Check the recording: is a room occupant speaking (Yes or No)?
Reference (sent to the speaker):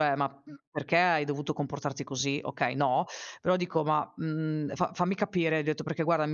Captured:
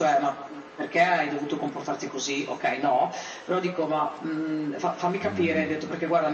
Yes